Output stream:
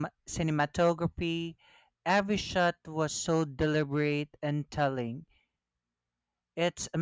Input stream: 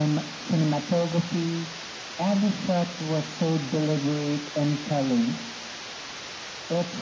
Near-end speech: none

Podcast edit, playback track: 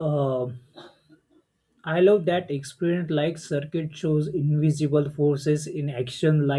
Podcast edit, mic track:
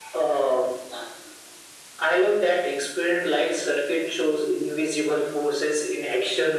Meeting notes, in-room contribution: none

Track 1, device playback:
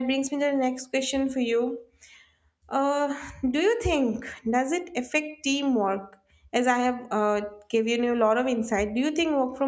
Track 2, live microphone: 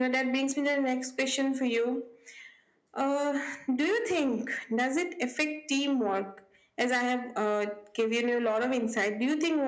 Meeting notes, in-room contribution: none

